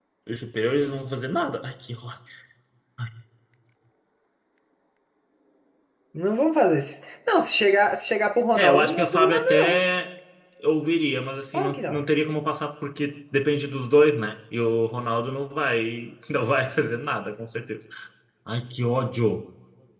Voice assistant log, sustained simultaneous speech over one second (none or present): present